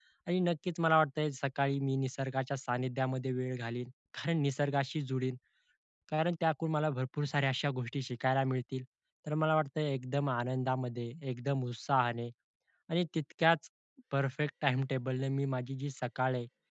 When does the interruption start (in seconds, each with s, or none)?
none